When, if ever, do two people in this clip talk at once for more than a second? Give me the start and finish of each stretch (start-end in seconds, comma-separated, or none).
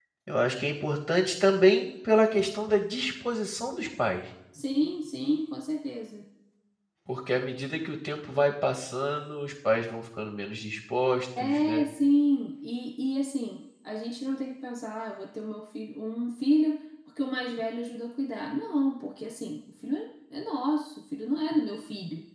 none